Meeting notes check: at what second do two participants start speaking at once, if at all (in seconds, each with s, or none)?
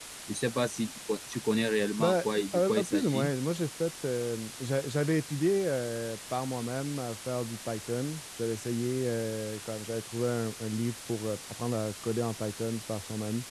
2.0 s